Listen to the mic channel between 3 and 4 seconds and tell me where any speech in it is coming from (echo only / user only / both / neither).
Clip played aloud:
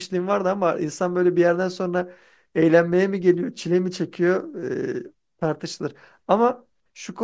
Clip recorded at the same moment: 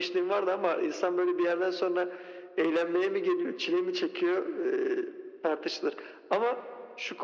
echo only